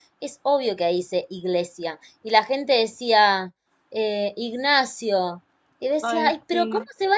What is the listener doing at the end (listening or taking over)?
listening